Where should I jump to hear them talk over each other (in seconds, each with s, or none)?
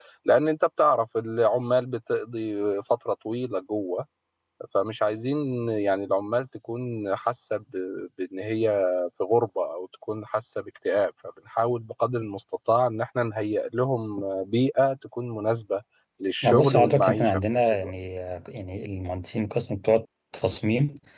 16.4 s